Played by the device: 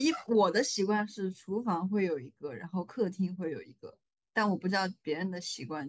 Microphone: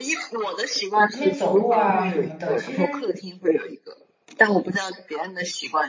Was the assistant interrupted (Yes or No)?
Yes